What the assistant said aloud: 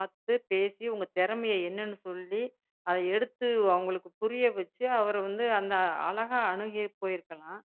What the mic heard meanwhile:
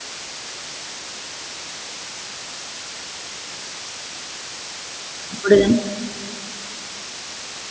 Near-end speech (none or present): present